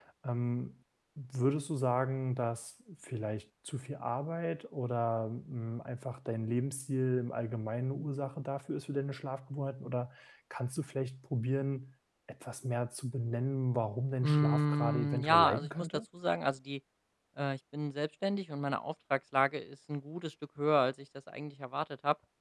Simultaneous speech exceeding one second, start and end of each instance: 14.2-15.9

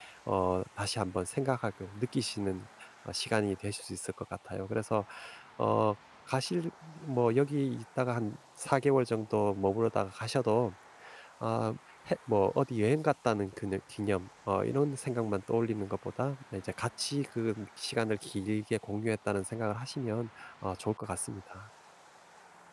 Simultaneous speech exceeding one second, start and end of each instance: none

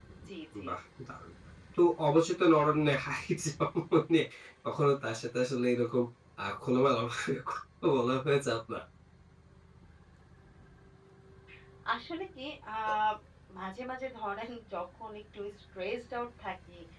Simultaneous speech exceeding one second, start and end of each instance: none

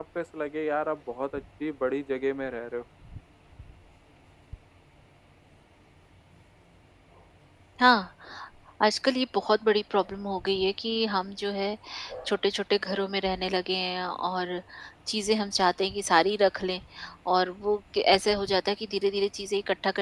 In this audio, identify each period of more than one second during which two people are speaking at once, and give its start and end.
none

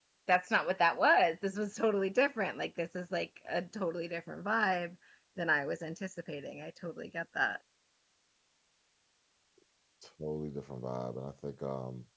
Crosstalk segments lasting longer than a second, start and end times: none

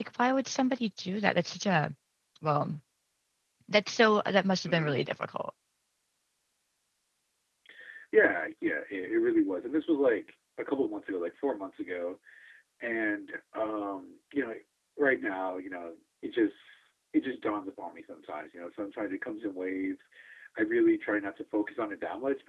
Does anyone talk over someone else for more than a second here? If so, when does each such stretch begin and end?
none

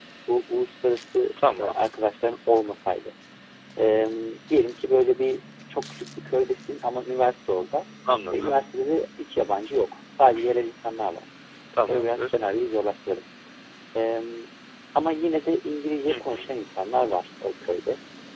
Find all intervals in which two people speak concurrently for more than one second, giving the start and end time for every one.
none

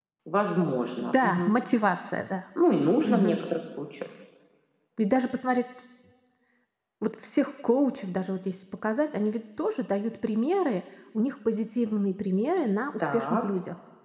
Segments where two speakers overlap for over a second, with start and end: none

